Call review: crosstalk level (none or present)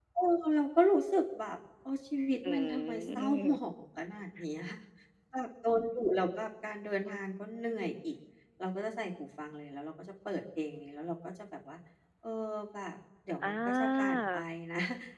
present